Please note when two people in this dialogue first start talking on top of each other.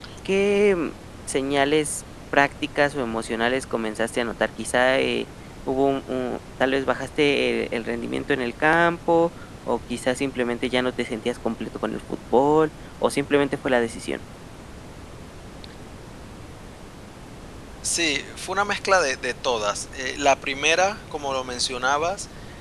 none

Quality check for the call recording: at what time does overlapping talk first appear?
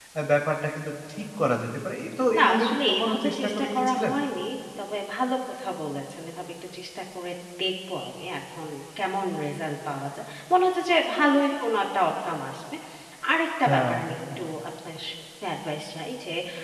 2.4 s

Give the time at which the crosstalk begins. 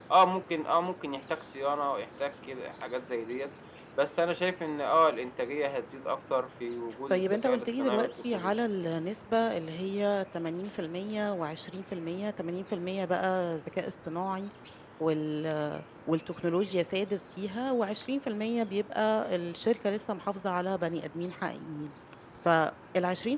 7.1 s

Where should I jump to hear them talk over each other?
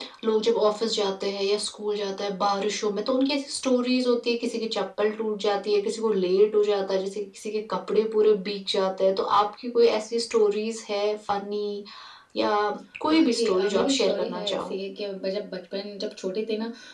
13.1 s

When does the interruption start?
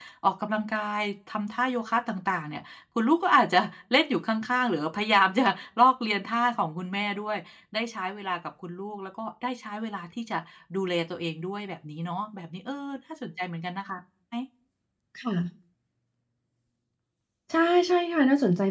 none

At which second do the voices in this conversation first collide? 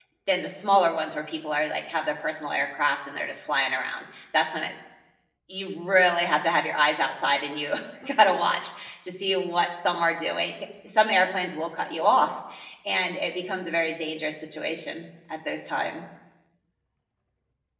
none

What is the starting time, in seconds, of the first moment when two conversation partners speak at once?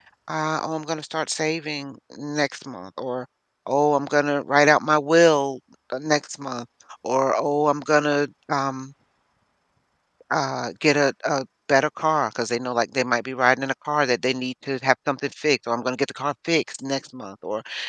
none

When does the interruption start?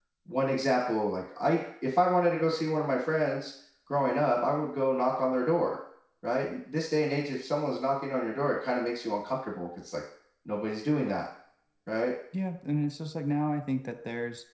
none

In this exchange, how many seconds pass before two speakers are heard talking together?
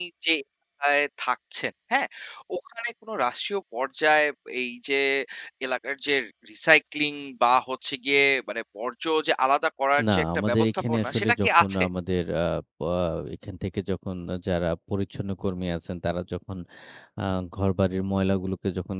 10.0 s

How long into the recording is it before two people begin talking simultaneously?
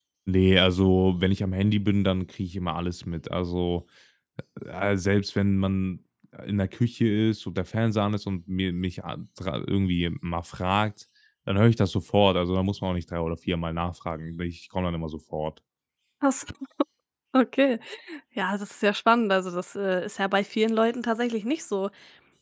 none

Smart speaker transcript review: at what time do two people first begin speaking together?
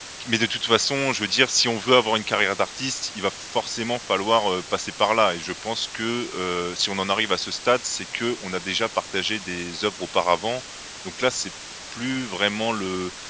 none

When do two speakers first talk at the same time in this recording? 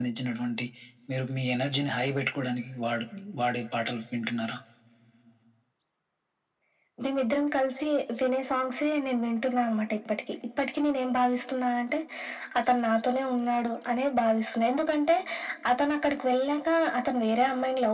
none

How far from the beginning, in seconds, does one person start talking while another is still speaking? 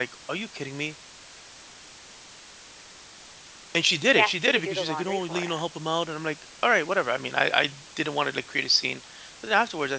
4.1 s

